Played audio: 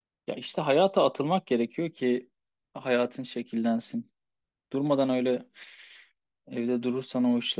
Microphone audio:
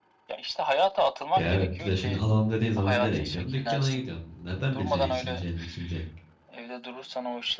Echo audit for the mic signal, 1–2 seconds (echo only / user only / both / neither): both